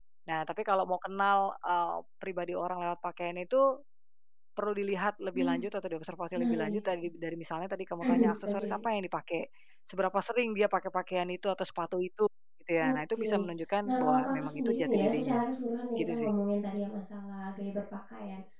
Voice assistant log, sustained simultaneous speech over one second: present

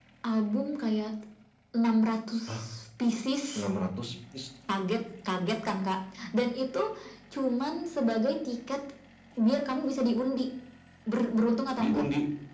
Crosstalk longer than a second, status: none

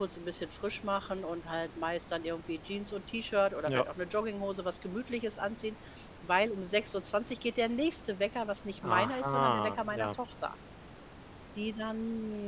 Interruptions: present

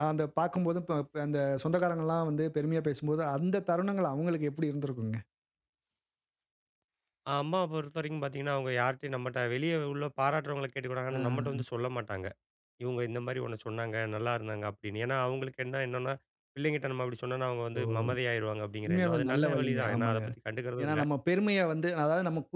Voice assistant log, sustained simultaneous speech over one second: present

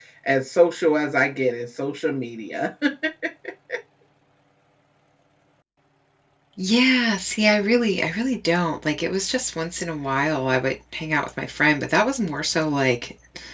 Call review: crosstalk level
none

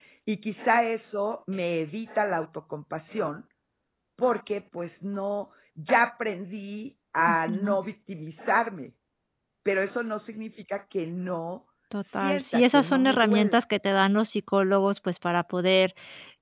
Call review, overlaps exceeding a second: present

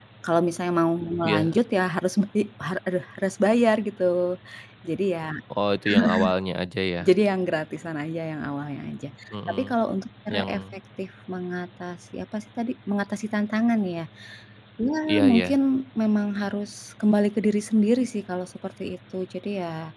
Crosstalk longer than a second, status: none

